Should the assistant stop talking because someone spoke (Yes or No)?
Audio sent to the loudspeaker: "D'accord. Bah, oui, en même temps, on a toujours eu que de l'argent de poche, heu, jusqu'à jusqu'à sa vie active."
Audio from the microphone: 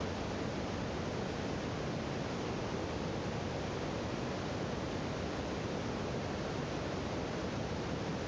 No